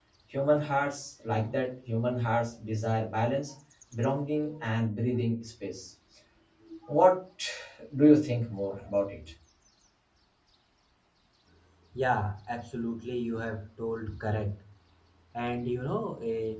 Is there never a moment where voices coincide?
Yes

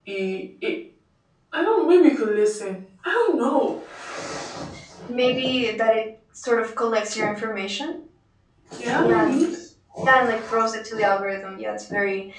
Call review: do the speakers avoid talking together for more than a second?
Yes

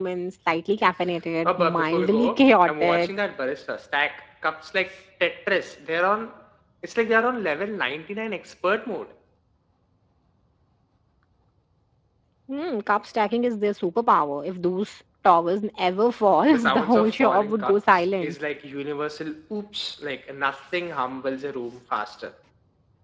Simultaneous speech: Yes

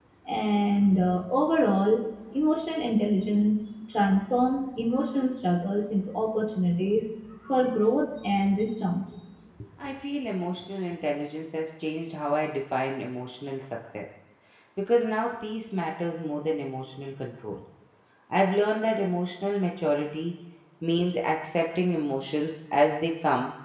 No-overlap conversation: Yes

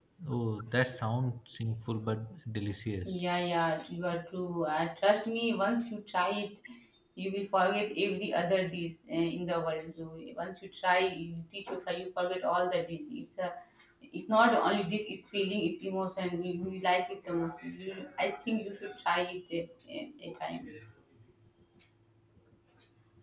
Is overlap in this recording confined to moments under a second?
Yes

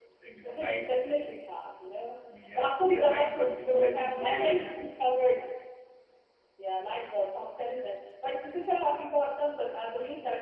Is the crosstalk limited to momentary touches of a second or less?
No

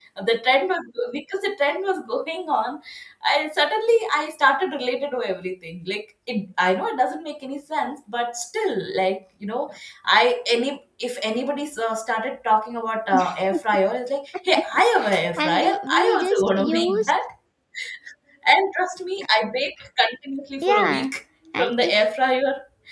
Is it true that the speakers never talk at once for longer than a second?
No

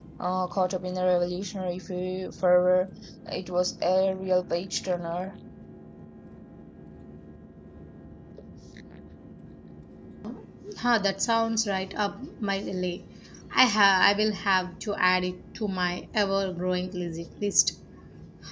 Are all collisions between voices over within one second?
Yes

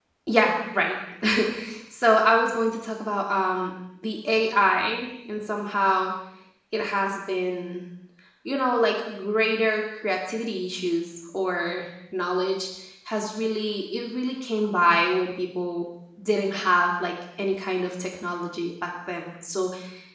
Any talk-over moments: No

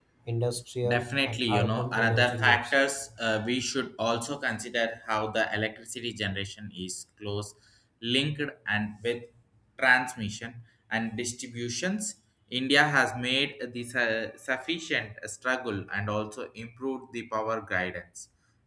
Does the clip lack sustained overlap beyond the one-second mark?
No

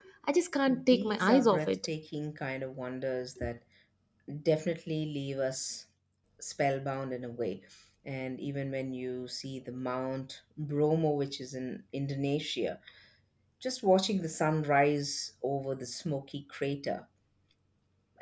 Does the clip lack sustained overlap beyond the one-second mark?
No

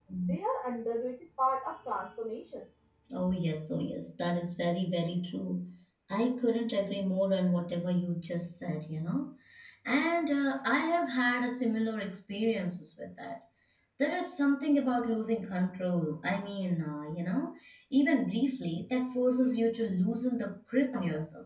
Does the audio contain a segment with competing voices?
No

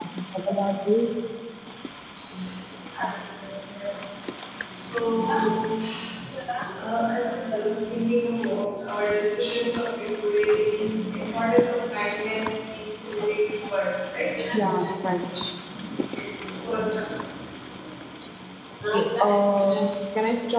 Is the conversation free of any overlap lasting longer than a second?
Yes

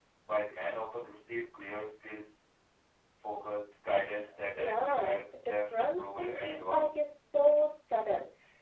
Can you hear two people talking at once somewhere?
Yes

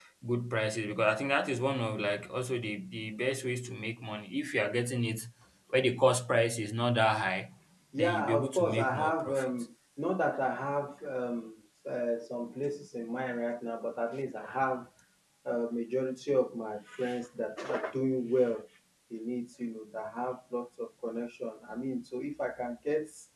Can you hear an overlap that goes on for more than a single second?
Yes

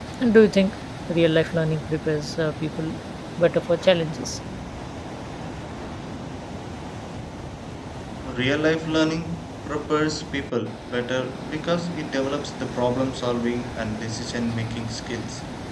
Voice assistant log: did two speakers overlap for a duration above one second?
No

